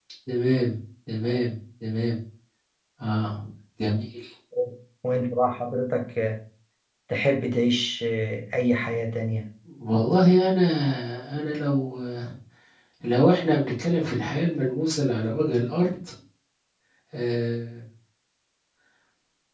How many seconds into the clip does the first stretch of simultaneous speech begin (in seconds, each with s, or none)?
none